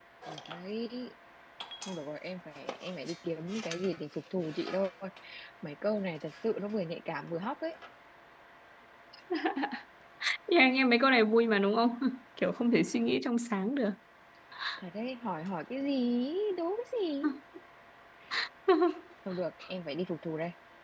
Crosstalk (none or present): none